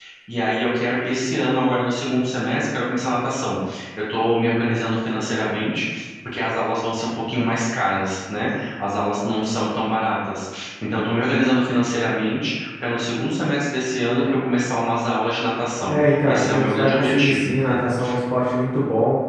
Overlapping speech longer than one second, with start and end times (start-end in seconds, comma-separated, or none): 15.9-17.5